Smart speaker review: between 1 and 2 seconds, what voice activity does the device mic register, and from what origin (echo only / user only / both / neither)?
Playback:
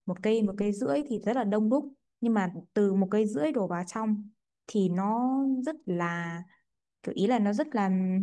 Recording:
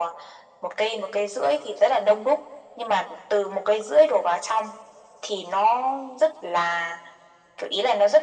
echo only